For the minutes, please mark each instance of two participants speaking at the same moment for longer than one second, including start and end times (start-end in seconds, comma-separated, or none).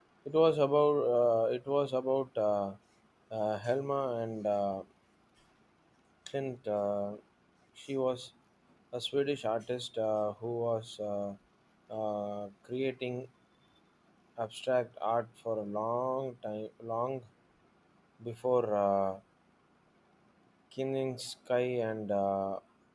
none